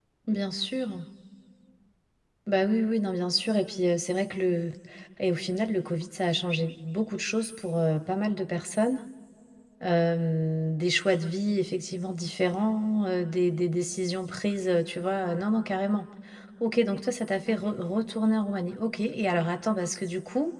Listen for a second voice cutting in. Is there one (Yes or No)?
No